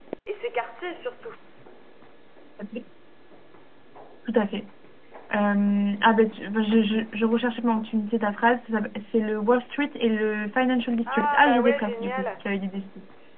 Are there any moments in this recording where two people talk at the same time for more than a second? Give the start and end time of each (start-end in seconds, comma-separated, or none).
11.1-12.3